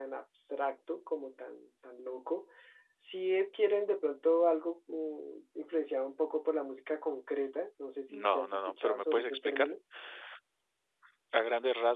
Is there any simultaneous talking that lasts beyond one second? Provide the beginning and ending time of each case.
8.2-9.7

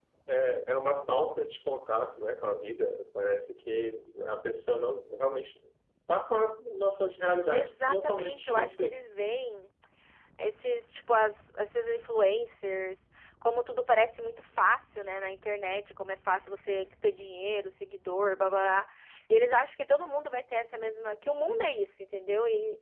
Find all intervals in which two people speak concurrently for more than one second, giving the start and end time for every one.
7.5-9.0

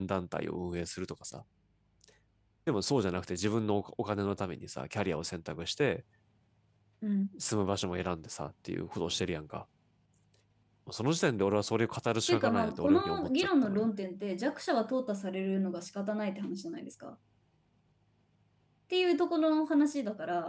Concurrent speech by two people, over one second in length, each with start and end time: 12.3-13.9

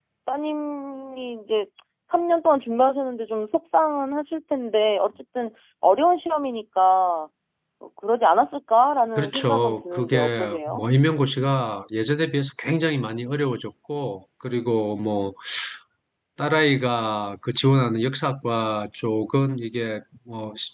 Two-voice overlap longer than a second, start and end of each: 9.2-10.8

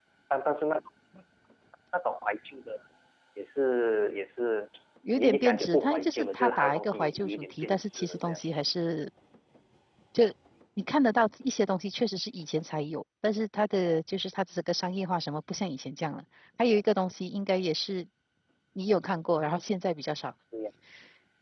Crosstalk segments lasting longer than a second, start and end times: 5.2-8.4

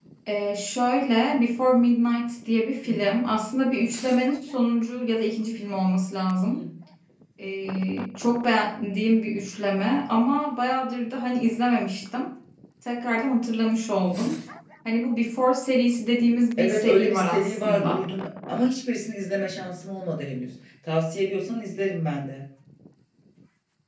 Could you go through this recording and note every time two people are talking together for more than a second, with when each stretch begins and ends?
16.6-18.1

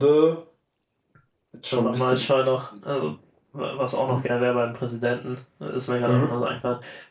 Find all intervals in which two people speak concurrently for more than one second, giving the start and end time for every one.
none

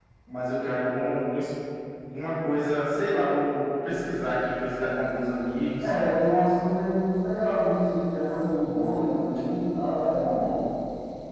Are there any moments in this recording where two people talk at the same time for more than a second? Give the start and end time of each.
none

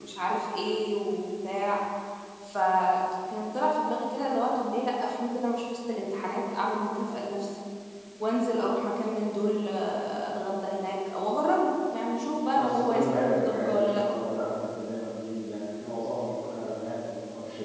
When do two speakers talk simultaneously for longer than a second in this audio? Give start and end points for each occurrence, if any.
12.6-14.1

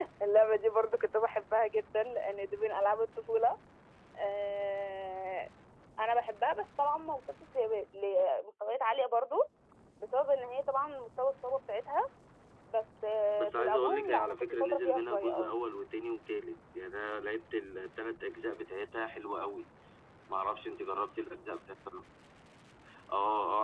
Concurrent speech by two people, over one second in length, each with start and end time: 13.4-15.5

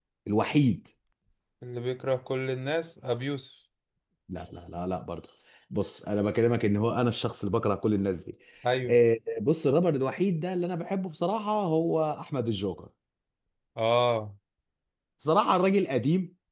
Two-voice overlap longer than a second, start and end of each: none

